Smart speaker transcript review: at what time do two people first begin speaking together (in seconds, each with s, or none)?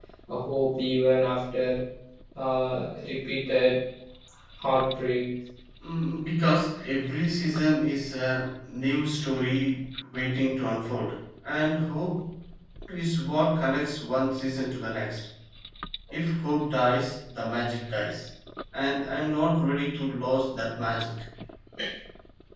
none